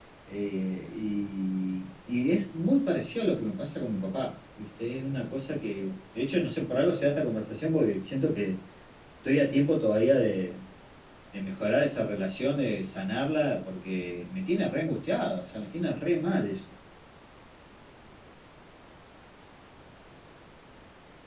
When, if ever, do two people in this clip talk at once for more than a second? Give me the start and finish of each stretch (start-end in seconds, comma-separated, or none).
none